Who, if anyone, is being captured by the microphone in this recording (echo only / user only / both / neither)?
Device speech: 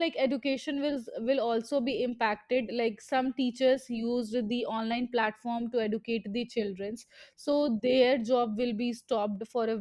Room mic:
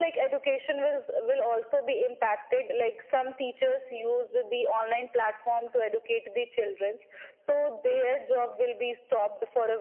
echo only